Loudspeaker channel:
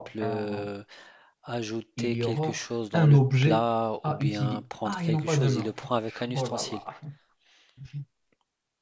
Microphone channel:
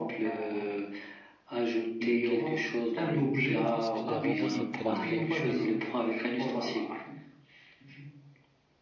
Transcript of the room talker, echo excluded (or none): Je pense que les robots, c'était la meilleure chose.